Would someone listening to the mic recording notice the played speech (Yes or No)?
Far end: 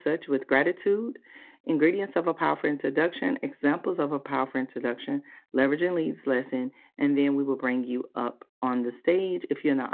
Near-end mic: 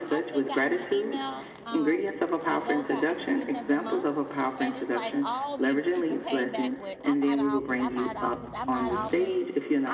Yes